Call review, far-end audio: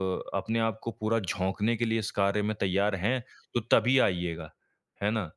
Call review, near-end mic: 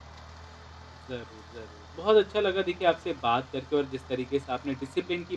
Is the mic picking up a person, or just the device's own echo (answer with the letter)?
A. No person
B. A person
B